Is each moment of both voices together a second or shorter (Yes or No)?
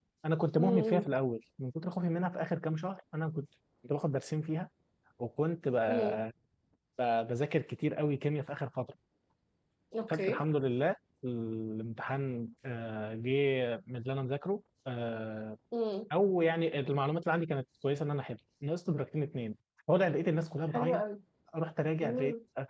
Yes